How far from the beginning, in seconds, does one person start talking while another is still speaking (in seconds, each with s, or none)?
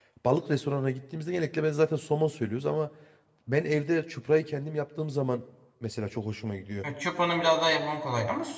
none